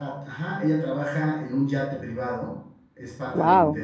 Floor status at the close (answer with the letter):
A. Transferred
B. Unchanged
B